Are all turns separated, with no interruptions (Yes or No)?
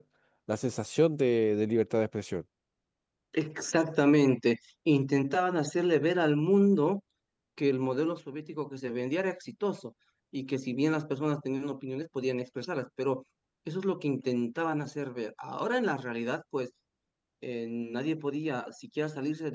Yes